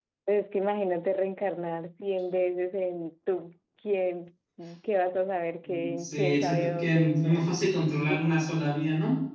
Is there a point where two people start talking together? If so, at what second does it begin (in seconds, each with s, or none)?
5.6 s